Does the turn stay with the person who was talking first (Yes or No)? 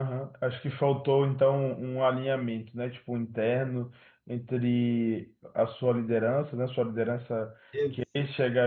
Yes